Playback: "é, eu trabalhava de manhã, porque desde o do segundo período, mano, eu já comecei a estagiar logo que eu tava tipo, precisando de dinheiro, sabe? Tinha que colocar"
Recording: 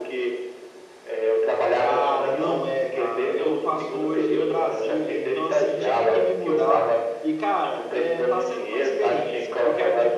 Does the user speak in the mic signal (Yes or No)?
Yes